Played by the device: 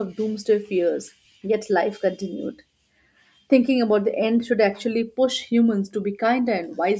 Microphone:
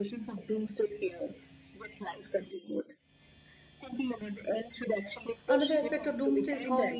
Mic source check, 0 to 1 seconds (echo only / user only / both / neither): echo only